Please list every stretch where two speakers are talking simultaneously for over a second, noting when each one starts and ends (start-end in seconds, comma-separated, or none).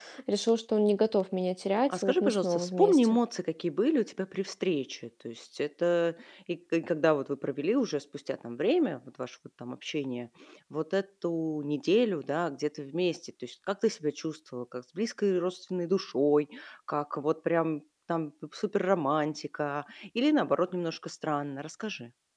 1.9-3.2